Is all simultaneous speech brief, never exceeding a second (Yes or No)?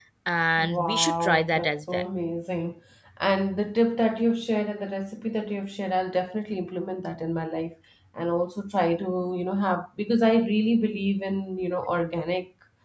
No